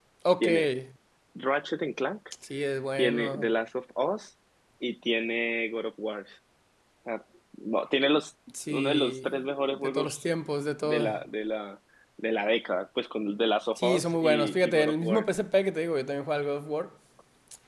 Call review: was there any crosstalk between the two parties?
Yes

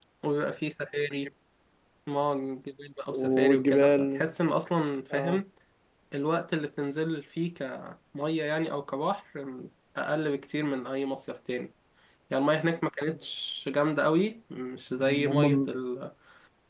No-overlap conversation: No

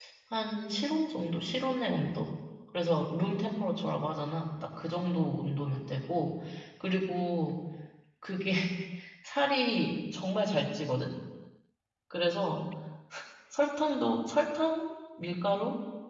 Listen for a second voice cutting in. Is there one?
No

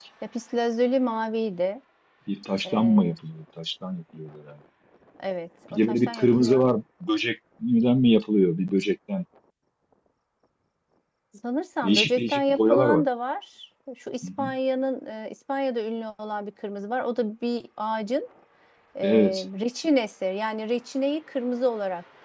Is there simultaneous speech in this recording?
Yes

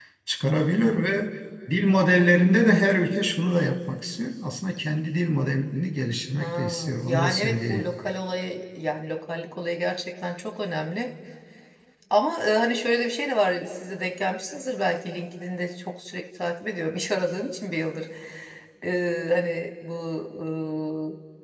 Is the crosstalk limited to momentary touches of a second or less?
No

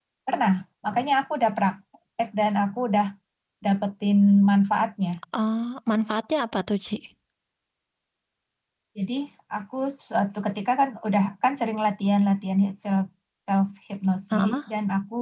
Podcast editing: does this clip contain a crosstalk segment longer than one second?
No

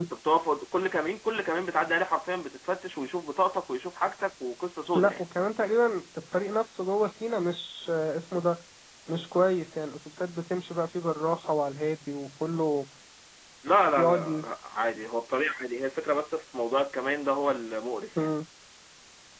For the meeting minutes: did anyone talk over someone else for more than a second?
No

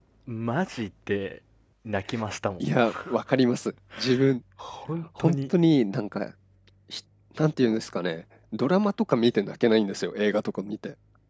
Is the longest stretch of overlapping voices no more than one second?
Yes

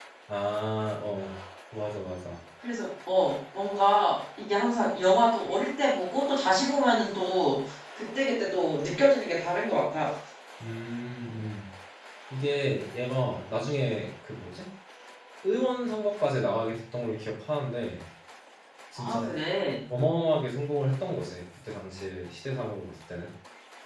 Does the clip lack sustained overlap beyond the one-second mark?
Yes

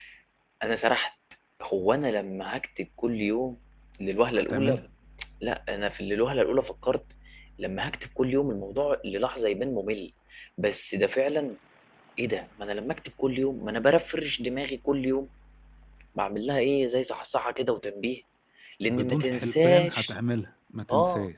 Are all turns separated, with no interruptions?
No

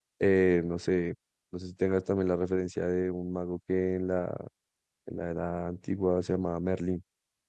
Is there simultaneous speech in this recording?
No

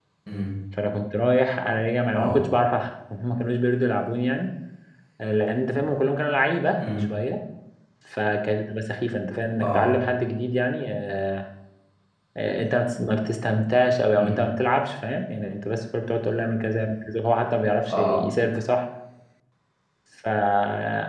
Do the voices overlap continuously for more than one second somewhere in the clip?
No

